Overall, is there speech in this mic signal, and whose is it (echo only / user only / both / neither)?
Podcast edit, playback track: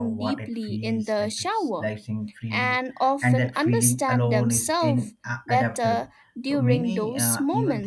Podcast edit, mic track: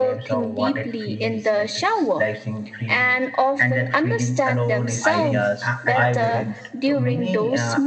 both